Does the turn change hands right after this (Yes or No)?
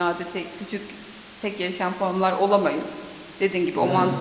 No